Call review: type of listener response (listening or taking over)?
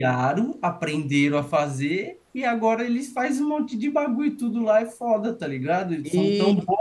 listening